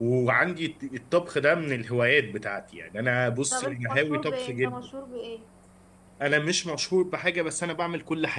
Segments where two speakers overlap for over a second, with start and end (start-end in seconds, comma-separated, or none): 3.5-4.9